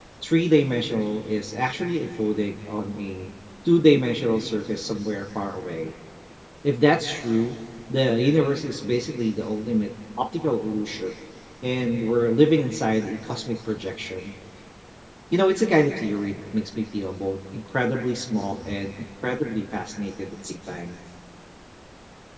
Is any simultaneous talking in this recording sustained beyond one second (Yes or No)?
No